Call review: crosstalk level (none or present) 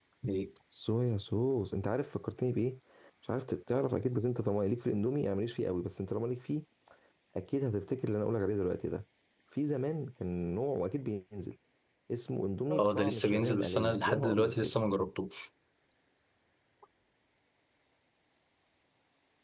present